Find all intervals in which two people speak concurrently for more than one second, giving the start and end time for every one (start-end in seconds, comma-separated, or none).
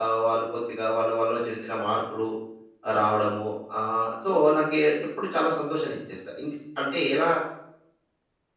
none